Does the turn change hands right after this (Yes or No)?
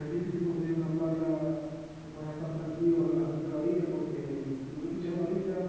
No